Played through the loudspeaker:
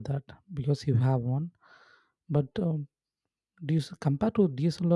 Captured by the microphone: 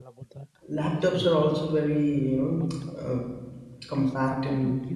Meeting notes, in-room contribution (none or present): present